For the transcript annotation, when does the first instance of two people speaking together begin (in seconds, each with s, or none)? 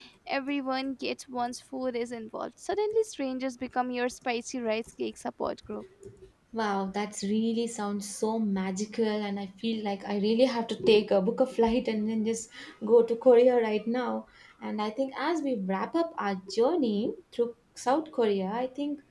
none